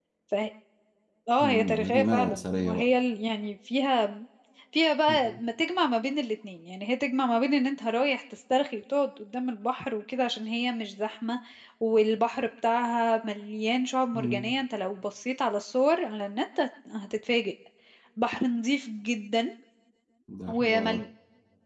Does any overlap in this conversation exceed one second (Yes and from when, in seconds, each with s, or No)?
Yes, from 1.4 s